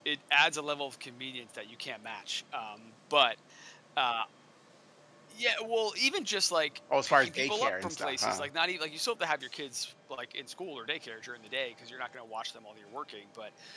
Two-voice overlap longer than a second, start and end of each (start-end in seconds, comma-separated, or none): 7.1-8.5